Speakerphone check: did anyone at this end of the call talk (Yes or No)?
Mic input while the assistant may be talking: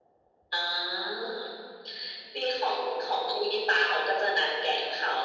No